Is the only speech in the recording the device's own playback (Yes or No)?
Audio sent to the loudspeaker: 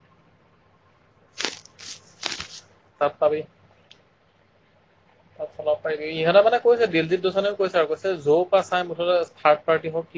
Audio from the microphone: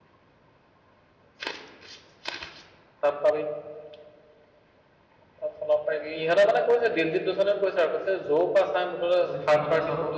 No